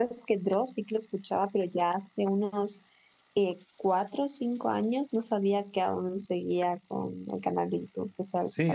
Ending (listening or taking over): taking over